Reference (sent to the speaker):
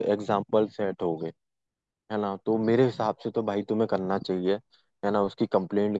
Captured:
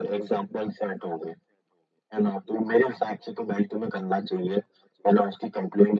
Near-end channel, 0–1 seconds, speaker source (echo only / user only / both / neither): echo only